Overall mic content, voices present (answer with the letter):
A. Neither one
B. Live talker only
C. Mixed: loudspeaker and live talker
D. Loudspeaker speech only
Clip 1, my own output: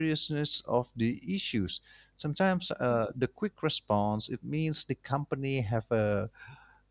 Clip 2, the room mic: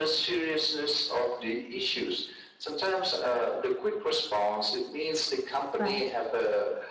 C